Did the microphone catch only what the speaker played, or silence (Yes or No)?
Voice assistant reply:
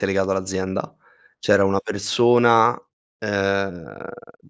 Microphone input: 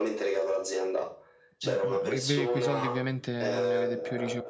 No